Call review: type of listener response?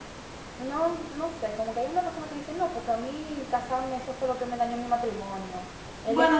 listening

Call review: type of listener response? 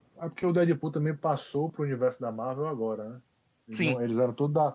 listening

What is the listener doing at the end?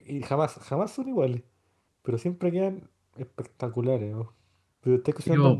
taking over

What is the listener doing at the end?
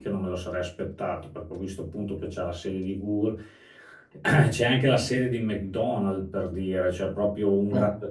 listening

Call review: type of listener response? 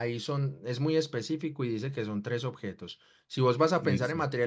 listening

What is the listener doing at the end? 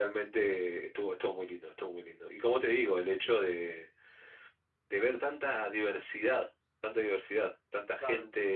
taking over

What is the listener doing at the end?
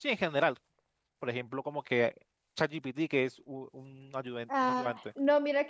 taking over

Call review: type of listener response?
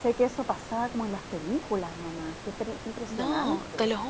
taking over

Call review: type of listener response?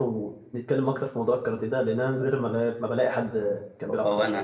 taking over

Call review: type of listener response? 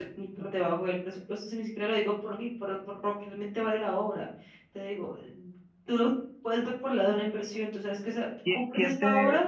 taking over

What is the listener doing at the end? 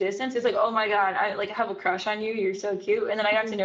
listening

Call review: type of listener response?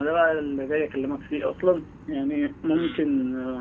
listening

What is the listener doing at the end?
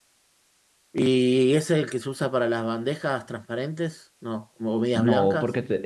taking over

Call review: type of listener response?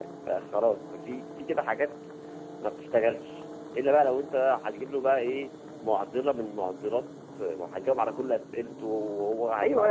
taking over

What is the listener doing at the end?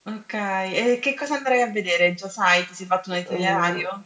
taking over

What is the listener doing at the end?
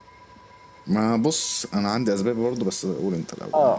taking over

